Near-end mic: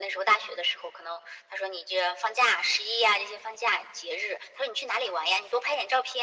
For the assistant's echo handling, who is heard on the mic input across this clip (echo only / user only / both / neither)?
echo only